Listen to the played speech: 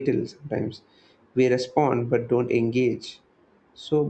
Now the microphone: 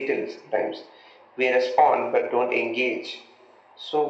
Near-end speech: none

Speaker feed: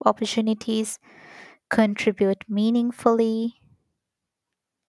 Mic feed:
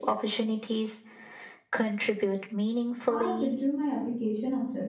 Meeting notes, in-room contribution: present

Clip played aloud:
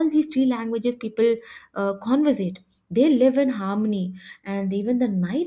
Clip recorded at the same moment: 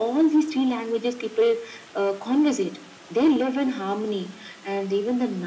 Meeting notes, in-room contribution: none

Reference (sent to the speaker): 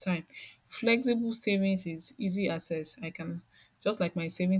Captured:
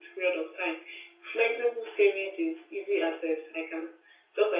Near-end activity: none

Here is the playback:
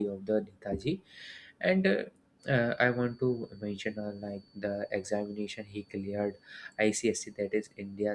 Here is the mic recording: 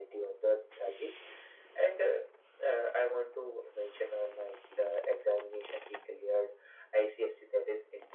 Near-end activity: none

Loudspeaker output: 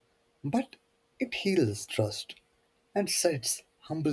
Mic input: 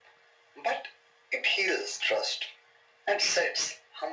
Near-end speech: none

